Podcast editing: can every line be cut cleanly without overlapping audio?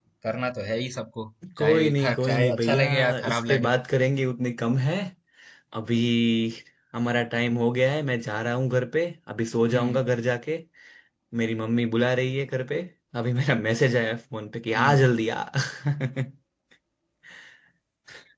No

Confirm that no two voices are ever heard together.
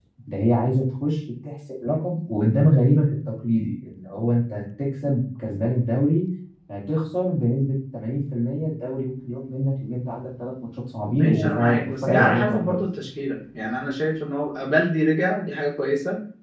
No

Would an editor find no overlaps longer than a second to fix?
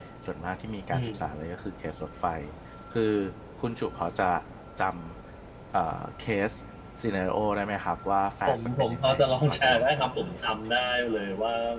No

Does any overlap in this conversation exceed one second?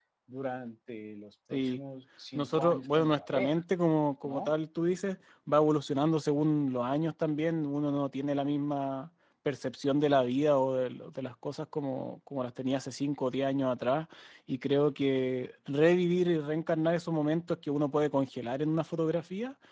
Yes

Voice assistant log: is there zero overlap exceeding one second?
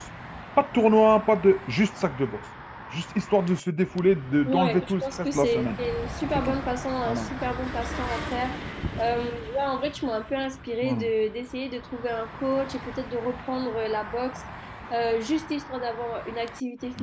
No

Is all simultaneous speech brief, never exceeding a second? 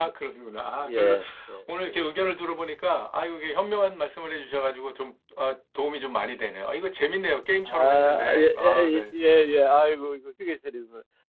No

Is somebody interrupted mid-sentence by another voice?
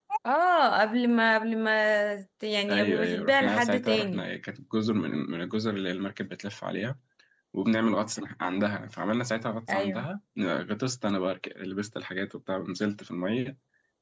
Yes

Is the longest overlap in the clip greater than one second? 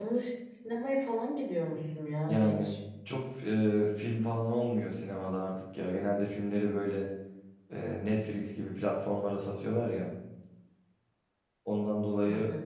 No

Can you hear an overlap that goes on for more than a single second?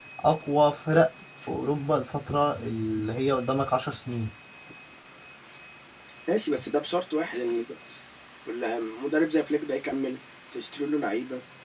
No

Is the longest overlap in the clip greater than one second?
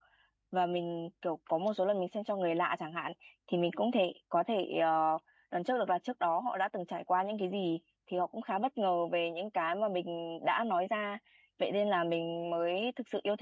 No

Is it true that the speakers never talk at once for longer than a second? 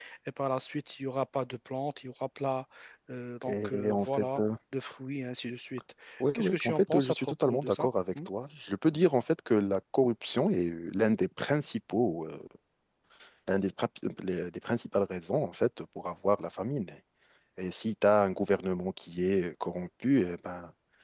No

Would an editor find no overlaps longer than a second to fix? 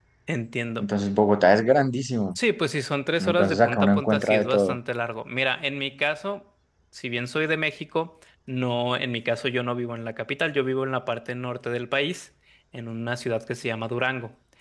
No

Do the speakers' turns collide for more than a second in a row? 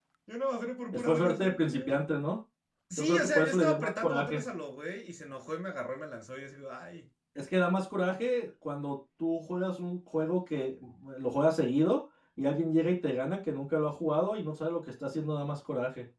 Yes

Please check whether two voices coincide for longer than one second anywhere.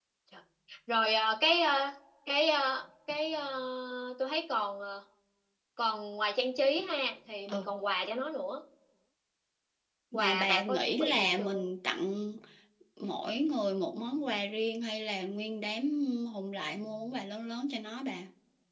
Yes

